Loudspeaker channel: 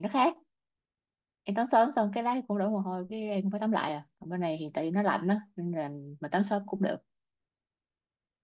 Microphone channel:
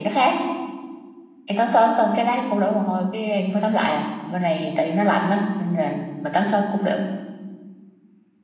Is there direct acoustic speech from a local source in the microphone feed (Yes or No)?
No